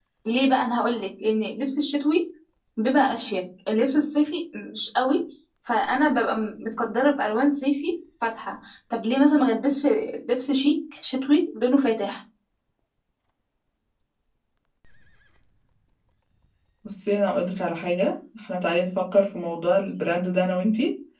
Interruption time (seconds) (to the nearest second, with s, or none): none